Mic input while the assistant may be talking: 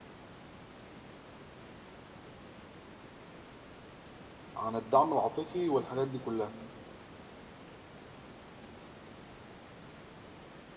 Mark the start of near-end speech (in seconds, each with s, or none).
4.6 s